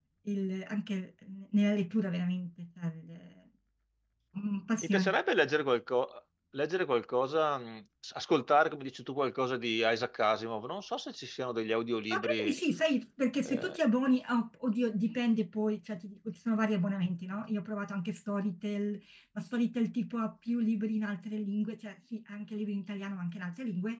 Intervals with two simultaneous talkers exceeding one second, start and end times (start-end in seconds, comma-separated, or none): none